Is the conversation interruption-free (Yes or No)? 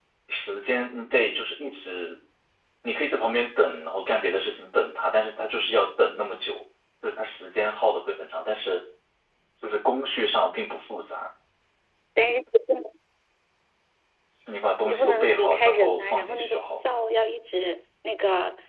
No